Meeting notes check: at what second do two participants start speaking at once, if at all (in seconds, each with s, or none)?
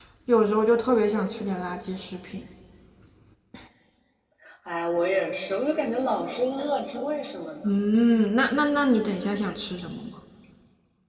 none